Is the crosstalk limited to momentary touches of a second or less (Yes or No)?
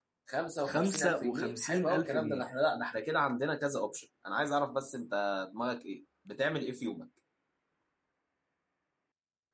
No